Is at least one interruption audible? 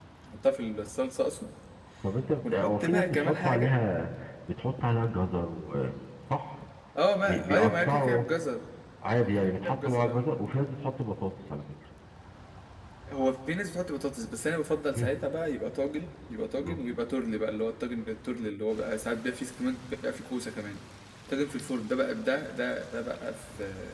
Yes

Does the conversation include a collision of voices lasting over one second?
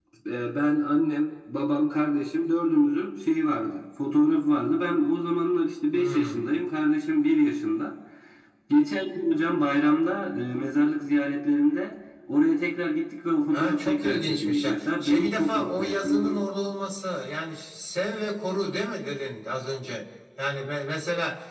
Yes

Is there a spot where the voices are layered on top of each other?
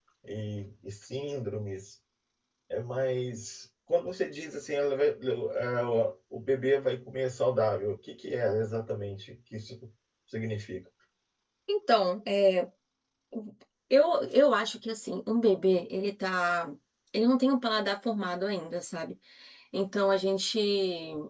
No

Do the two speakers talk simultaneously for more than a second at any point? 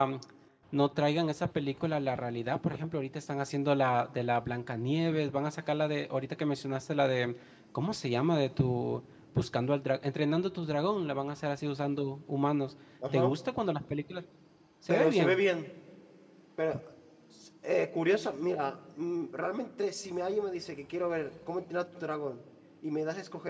No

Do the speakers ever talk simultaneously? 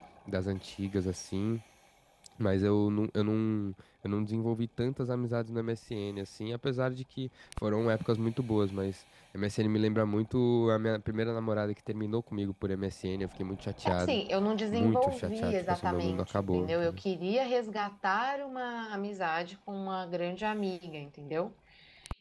Yes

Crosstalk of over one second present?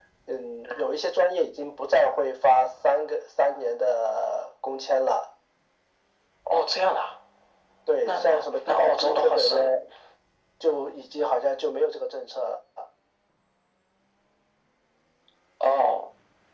Yes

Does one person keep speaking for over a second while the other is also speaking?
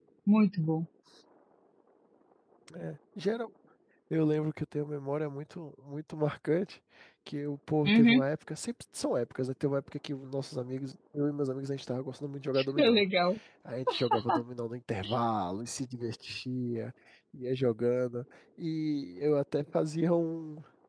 No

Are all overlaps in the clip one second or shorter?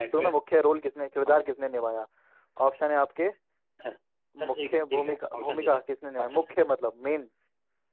No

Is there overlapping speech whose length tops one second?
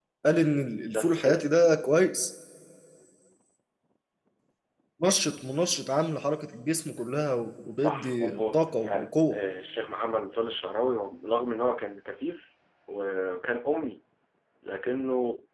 Yes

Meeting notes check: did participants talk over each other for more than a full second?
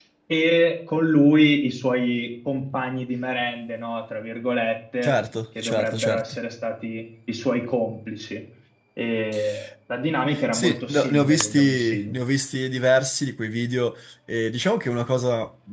Yes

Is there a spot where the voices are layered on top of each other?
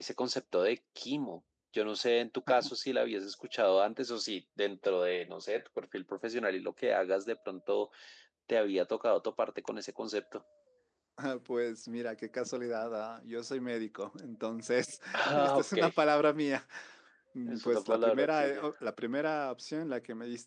Yes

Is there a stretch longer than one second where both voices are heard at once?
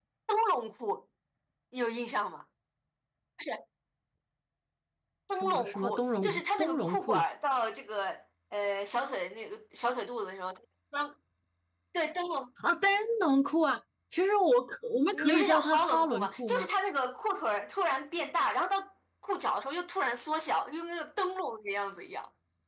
Yes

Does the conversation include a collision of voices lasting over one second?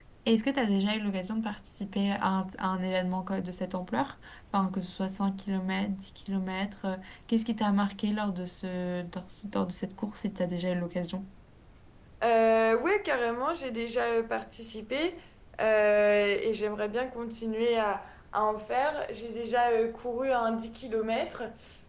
No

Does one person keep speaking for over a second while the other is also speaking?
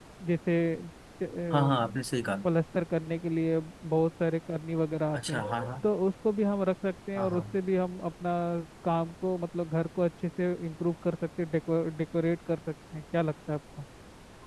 No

